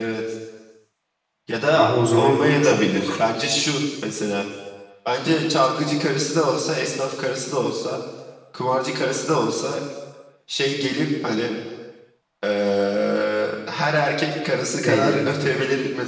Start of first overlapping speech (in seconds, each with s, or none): 1.7 s